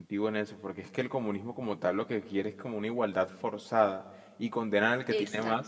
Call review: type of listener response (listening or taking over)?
listening